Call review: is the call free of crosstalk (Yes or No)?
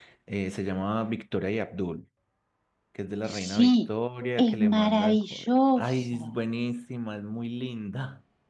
No